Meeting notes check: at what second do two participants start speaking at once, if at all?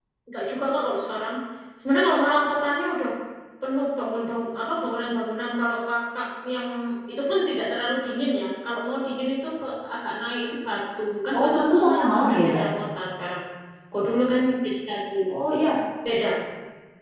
11 s

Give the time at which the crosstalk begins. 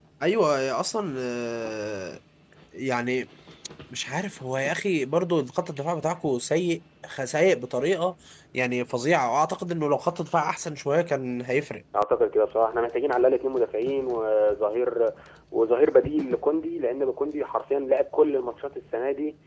none

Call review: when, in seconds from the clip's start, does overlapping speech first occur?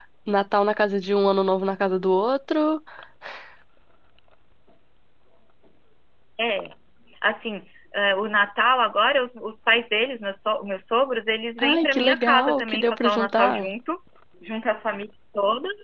12 s

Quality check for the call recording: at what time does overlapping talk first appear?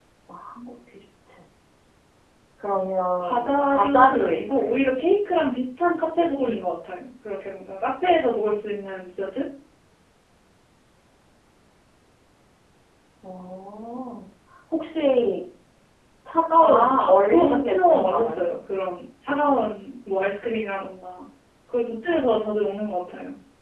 3 s

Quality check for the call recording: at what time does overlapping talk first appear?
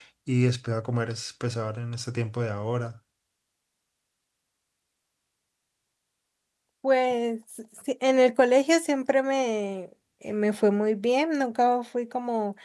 none

